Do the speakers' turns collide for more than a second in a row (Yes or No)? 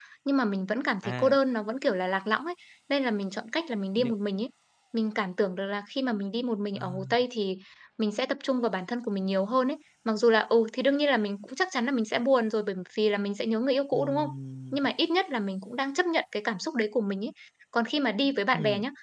No